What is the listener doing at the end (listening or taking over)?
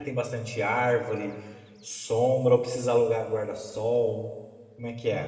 taking over